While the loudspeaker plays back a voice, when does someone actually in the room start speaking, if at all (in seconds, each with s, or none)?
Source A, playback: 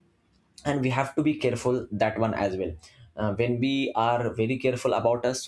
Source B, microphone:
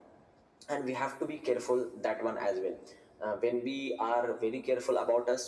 none